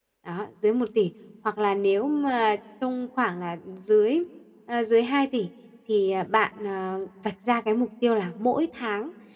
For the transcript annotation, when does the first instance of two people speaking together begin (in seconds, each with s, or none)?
none